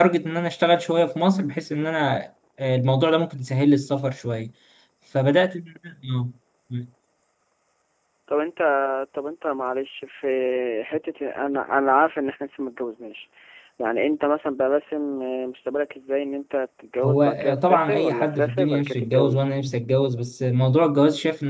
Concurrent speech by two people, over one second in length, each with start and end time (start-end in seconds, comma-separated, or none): 17.0-19.6